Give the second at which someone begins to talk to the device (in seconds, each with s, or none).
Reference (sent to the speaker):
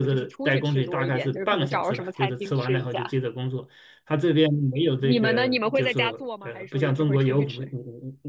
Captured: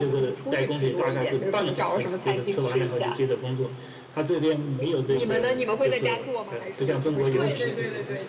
7.3 s